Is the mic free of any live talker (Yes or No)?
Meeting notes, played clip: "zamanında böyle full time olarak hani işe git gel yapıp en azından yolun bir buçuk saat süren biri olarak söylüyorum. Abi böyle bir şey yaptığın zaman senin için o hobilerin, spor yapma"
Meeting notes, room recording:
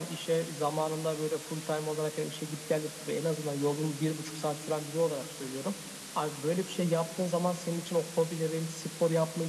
Yes